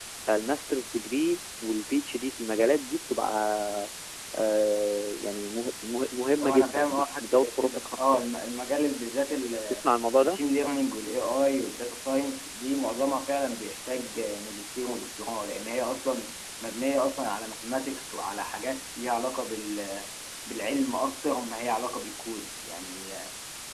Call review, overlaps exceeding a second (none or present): present